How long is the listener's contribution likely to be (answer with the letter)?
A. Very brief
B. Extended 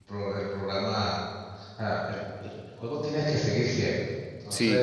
A